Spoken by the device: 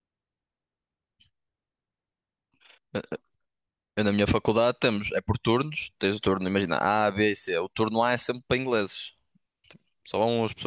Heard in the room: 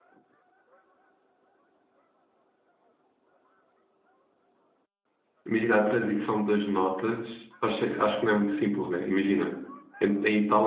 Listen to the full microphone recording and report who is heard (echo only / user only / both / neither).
user only